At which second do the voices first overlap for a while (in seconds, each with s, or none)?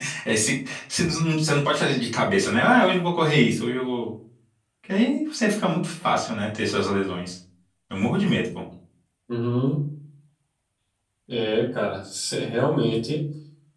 none